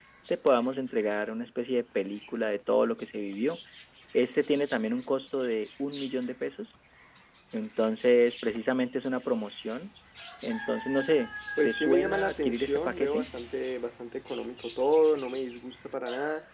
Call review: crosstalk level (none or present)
present